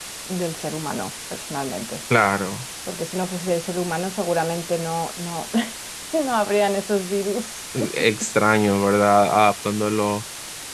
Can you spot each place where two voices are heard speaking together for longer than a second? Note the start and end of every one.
none

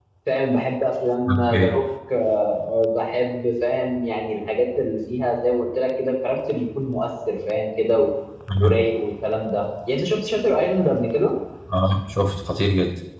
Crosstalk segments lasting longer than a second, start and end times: none

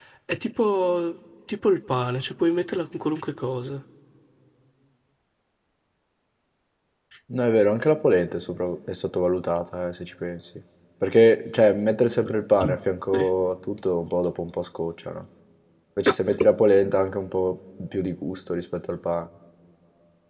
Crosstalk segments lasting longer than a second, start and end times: none

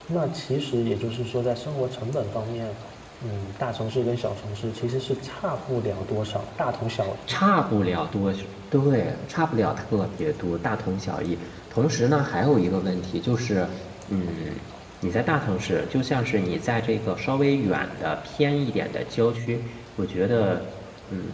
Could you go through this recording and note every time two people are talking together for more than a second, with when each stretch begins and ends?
none

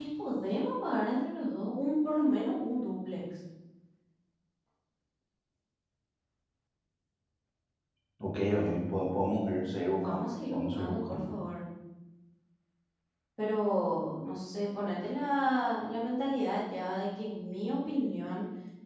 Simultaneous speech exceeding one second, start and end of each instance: 10.0-11.3

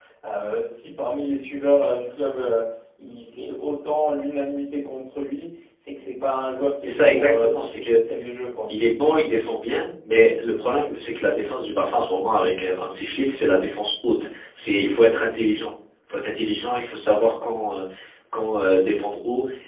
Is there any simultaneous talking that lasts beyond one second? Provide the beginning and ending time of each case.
6.8-8.0

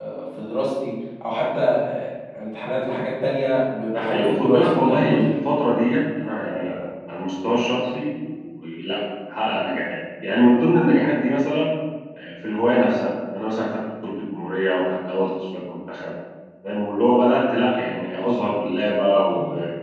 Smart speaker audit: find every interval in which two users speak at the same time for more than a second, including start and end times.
3.9-5.4

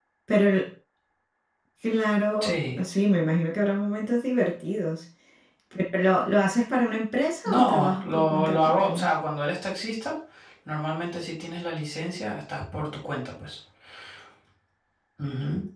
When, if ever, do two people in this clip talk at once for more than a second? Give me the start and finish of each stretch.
7.5-9.1

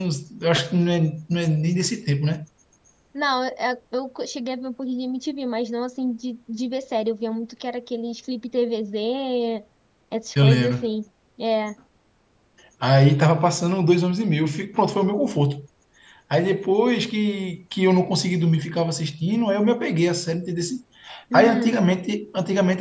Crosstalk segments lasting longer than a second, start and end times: none

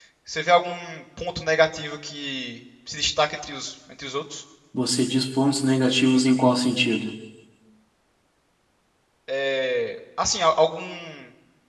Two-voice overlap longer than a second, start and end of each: none

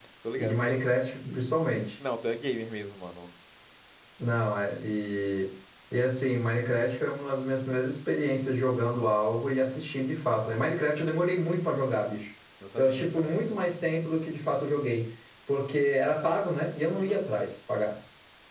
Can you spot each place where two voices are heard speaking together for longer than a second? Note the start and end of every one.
none

